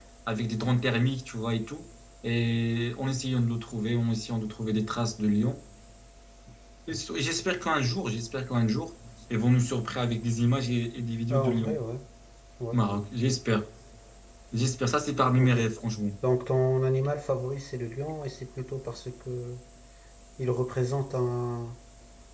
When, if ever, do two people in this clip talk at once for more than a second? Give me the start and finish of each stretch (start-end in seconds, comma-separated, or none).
none